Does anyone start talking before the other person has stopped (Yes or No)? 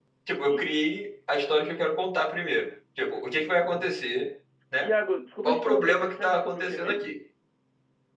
Yes